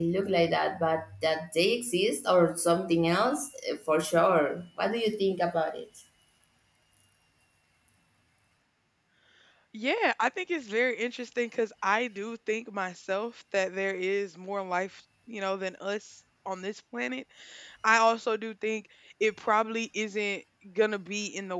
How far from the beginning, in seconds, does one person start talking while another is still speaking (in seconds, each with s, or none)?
none